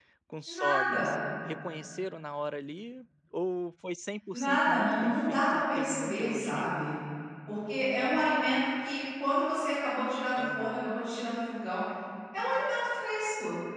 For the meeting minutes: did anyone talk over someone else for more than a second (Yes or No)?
Yes